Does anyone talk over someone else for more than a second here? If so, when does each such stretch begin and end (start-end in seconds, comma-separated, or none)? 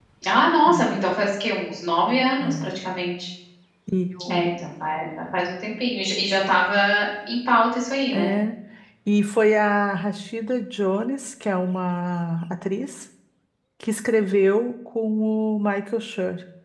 none